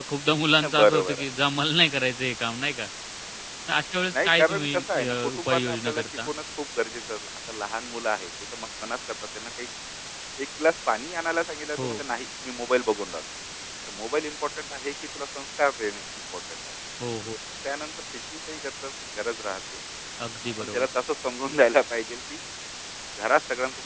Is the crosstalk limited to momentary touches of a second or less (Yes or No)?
No